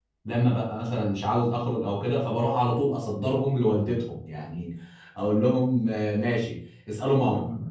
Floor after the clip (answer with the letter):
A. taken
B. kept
B